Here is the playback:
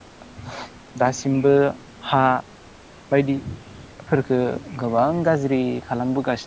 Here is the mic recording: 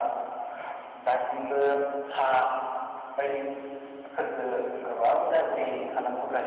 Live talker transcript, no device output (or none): none